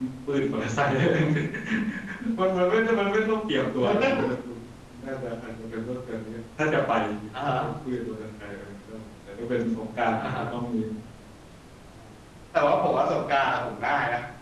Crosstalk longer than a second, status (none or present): none